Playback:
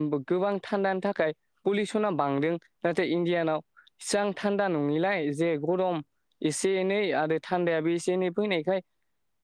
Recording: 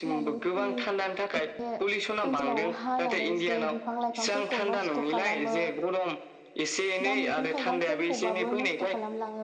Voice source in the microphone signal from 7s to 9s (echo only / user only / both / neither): both